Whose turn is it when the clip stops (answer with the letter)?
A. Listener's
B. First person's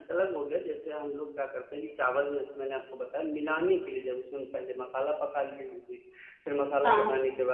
B